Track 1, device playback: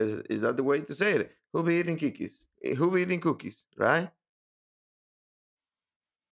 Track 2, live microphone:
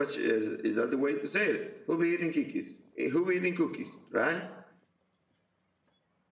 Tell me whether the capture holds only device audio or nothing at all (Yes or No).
Yes